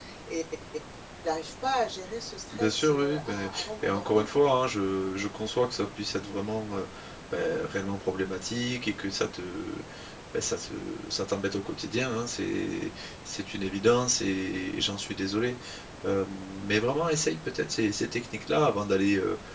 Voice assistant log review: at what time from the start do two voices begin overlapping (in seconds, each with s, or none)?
2.5 s